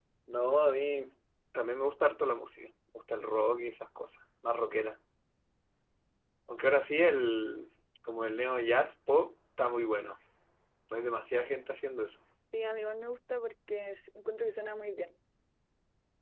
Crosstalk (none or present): none